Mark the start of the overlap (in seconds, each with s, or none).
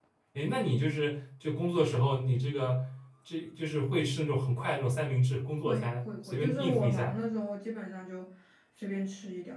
5.6 s